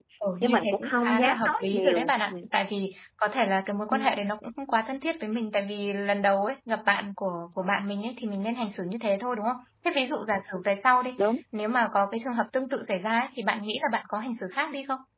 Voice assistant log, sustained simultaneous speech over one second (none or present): present